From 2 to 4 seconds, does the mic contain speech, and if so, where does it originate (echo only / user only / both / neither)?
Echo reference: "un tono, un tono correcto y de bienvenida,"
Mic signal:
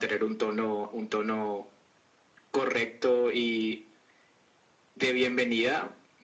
echo only